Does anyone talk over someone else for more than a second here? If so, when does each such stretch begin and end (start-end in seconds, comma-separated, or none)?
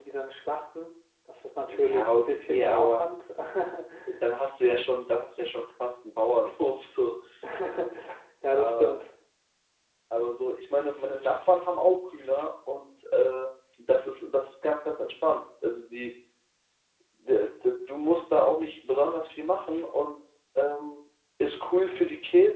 1.7-3.0